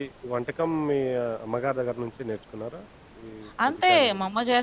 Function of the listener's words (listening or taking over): taking over